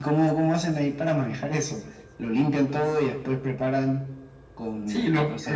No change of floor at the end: No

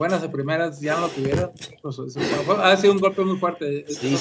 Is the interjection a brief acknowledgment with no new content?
No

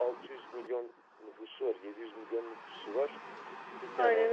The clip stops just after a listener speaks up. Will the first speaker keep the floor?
Yes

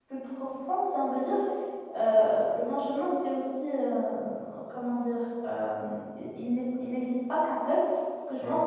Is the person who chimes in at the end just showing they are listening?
Yes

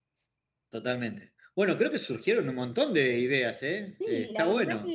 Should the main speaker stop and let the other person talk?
Yes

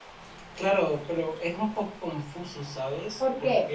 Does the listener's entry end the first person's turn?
No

